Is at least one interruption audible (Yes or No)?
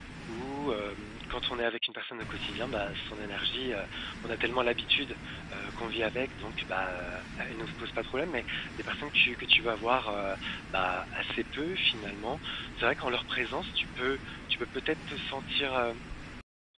No